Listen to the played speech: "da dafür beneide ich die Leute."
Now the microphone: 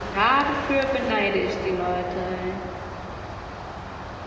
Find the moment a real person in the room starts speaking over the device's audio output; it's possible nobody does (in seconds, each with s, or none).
none